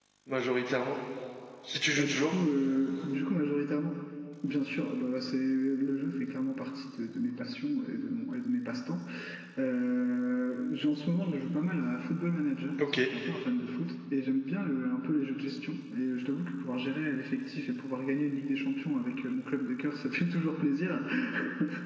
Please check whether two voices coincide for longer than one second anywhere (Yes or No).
No